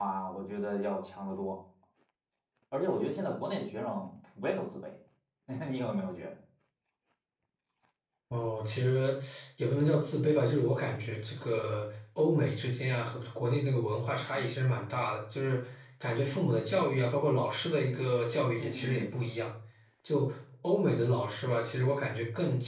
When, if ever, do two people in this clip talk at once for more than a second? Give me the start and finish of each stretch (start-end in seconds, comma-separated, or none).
none